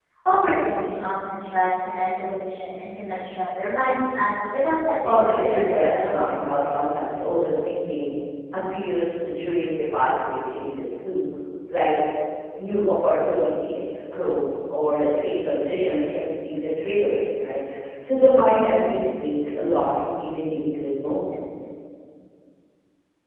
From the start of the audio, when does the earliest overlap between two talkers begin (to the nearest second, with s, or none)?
5 s